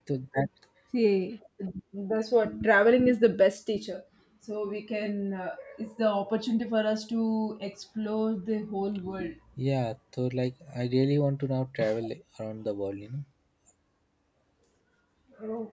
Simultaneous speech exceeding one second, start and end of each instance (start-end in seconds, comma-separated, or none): none